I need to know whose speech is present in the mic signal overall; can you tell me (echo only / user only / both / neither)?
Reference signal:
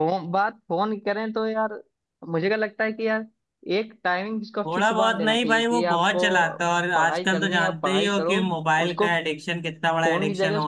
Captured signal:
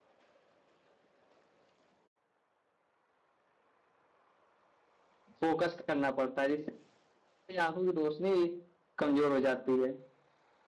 user only